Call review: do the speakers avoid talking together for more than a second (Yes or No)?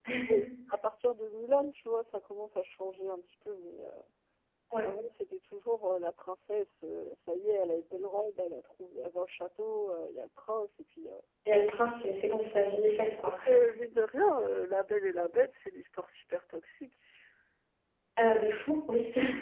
Yes